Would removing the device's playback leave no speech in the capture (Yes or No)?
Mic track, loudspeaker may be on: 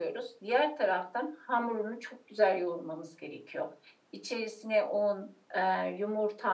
Yes